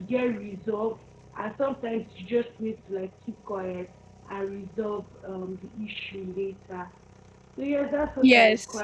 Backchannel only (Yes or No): Yes